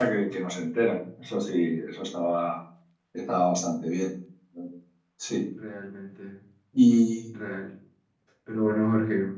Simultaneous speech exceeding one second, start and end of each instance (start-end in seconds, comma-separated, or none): none